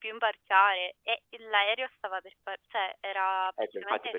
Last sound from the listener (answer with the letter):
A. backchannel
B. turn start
B